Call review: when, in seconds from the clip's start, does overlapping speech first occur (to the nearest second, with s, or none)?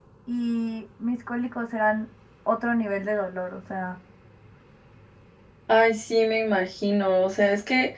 none